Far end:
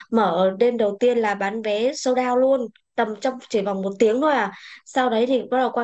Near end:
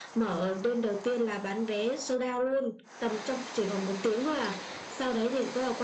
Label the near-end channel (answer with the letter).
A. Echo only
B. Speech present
A